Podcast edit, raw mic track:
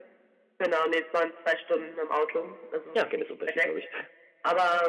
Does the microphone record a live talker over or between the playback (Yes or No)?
Yes